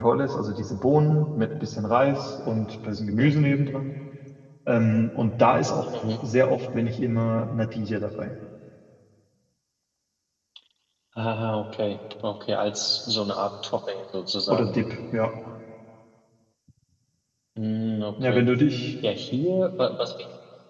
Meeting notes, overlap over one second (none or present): none